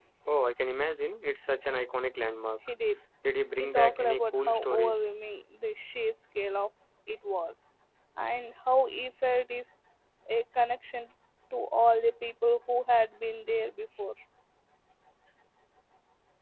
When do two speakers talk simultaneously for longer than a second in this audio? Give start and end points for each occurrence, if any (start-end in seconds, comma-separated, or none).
3.6-5.0